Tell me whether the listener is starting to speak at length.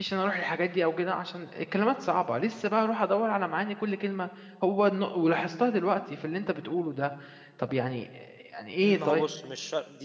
Yes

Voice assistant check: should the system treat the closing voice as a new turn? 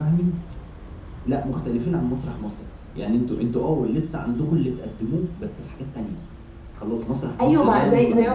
Yes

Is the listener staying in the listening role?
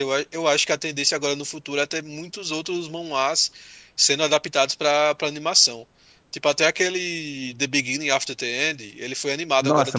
No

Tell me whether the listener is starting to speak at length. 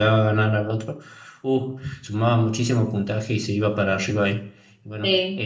No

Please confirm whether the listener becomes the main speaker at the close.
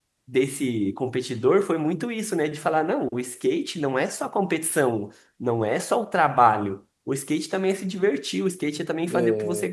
No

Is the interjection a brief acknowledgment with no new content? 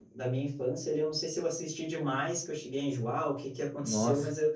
Yes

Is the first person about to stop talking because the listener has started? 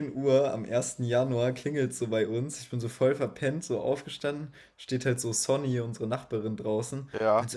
No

